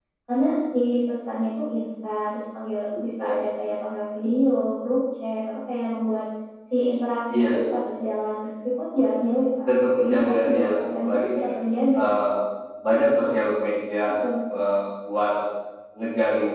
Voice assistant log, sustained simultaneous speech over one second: present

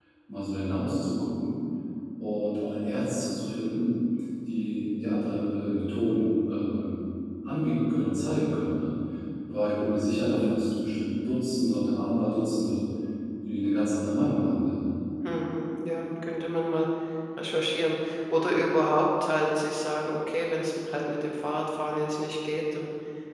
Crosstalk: none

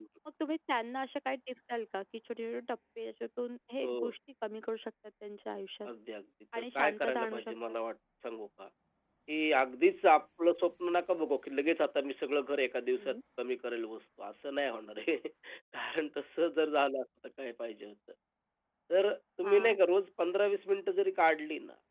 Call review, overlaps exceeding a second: present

